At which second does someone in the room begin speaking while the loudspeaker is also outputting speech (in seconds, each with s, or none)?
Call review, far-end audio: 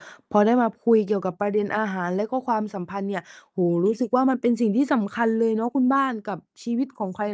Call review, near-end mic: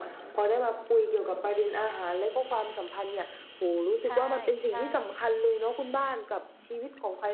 4.0 s